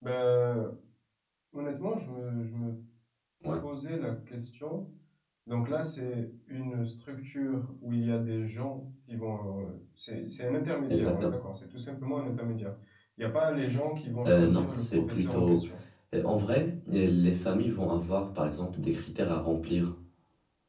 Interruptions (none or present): present